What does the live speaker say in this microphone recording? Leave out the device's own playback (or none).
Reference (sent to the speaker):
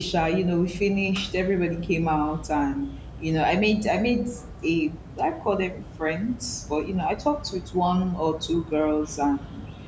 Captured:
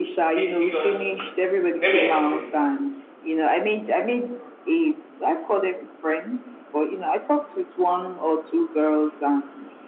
Be- because let me explain.